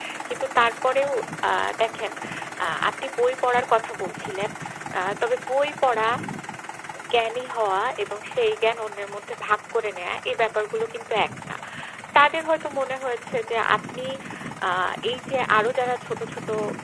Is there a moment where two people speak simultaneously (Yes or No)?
No